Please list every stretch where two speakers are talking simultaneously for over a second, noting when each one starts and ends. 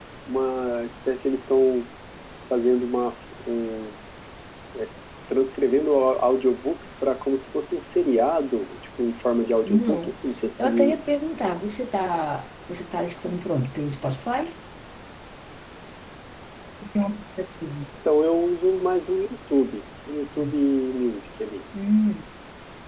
none

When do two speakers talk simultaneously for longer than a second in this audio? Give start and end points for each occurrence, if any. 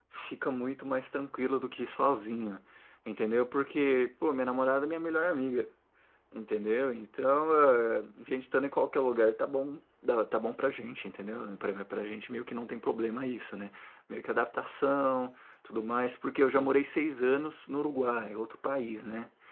none

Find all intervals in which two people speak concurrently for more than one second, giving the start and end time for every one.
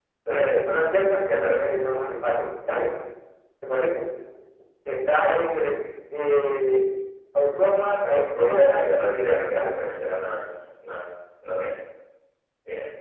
8.1-9.8

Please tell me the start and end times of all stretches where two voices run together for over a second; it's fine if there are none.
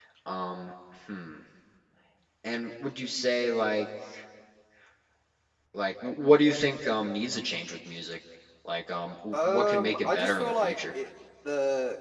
9.3-10.9

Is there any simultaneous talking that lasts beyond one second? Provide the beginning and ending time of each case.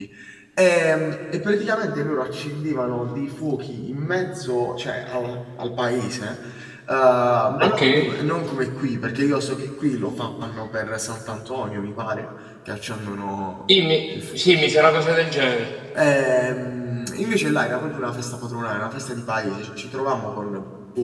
none

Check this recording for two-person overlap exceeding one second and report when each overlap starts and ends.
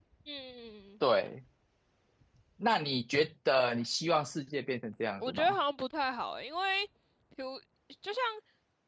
none

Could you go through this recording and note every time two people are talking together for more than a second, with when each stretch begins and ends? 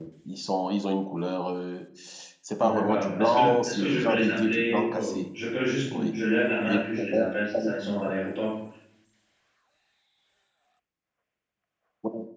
2.6-5.2

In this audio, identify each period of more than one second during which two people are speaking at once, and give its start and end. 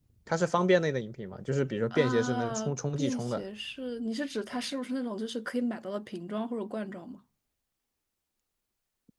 1.9-3.4

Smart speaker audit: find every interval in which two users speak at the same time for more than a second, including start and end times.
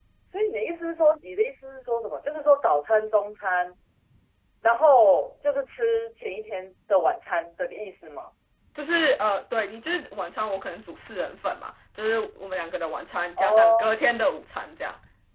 none

